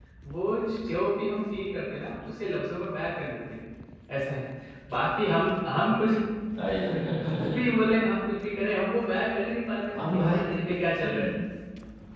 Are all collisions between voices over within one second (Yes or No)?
Yes